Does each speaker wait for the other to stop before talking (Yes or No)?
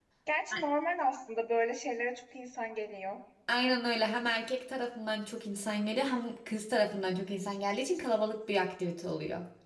Yes